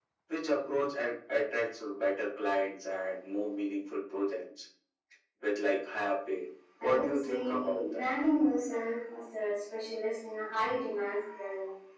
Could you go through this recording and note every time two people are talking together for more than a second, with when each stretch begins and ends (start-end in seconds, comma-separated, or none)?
6.8-8.1